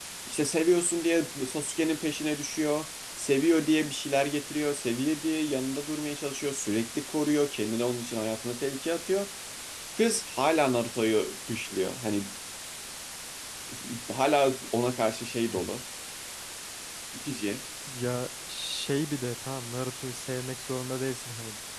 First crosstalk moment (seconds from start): none

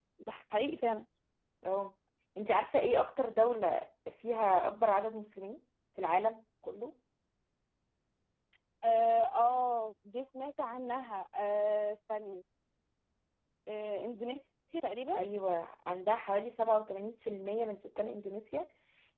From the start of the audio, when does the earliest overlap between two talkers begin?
none

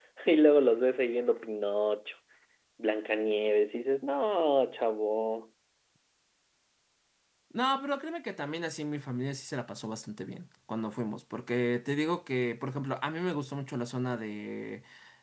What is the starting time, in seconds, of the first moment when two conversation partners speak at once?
none

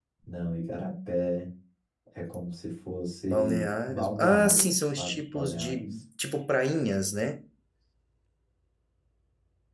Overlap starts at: 3.3 s

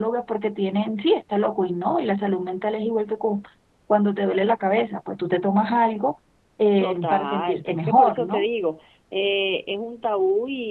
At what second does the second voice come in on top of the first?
6.8 s

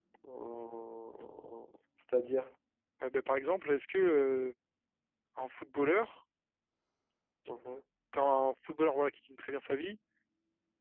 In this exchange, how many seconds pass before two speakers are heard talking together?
none

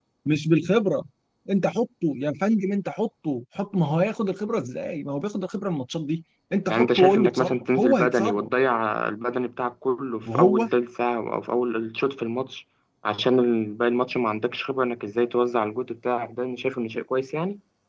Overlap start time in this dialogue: 6.7 s

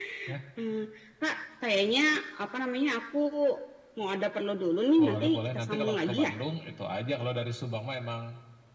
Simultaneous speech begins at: 5.0 s

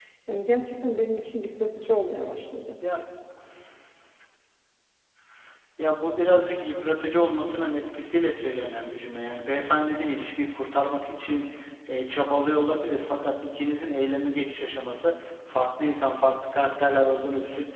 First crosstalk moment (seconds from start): none

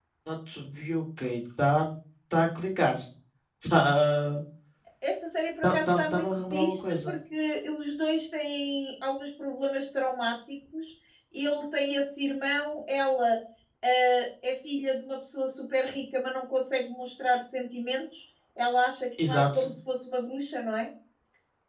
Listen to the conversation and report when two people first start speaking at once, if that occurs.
5.6 s

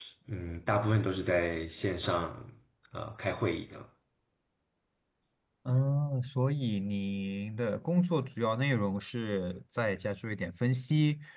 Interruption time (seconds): none

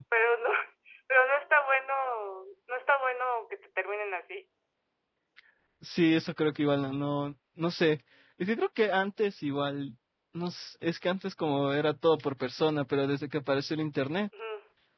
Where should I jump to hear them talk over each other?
none

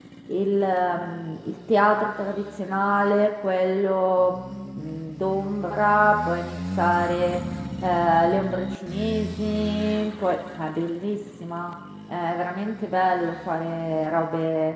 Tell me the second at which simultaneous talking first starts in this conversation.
none

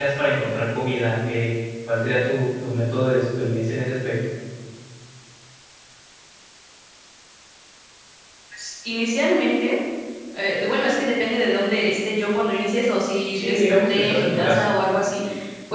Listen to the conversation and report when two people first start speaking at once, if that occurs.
13.3 s

